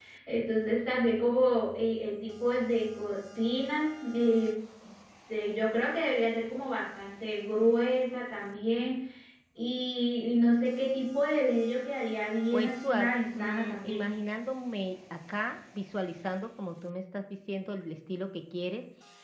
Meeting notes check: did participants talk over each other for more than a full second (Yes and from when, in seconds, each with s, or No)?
Yes, from 12.5 s